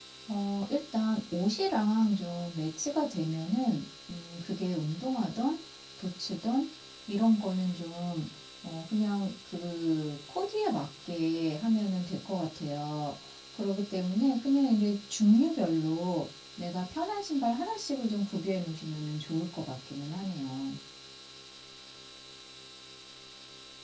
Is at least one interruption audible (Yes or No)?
No